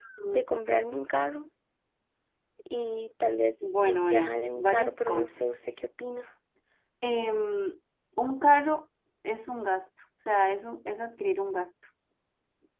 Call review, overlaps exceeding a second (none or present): present